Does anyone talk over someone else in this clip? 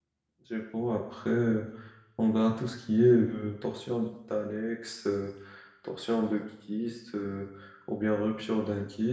No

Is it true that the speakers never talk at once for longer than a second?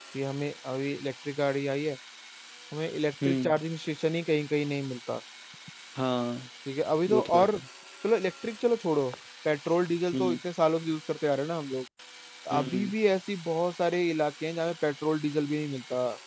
Yes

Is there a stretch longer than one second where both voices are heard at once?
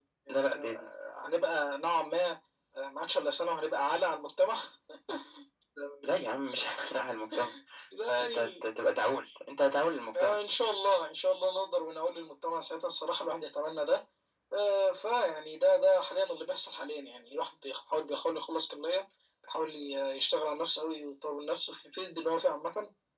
No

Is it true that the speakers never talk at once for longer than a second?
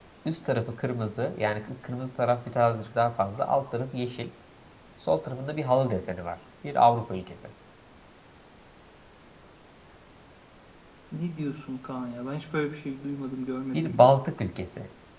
Yes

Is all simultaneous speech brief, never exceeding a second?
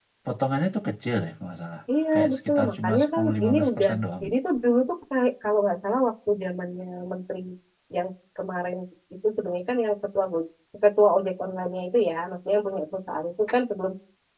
No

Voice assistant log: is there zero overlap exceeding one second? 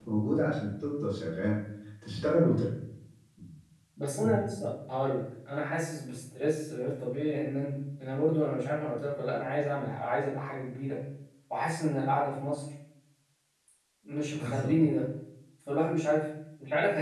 Yes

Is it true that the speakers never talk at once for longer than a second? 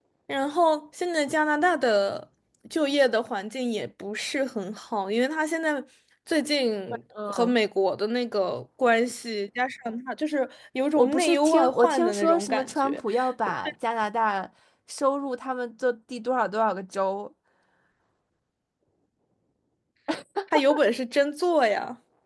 No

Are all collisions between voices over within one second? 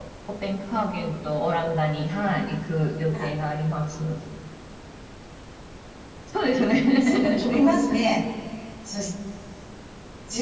Yes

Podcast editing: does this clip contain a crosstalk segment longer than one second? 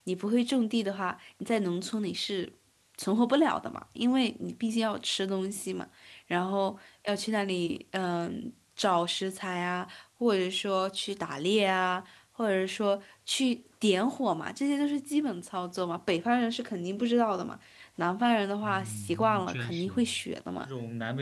Yes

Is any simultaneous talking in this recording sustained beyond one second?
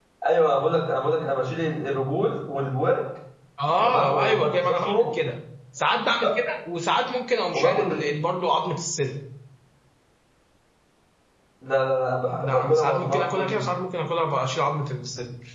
Yes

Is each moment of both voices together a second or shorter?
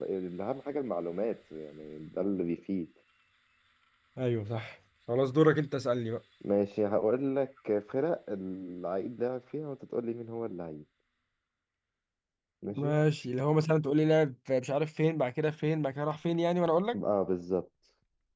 Yes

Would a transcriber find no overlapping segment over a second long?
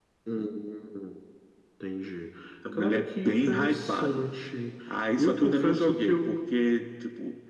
No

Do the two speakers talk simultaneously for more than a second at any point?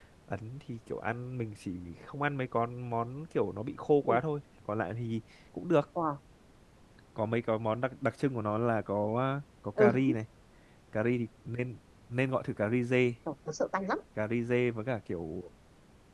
No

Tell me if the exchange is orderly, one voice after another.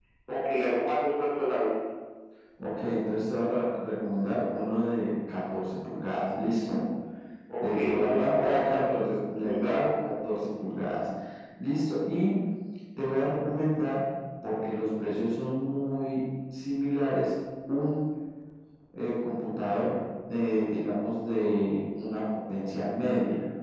No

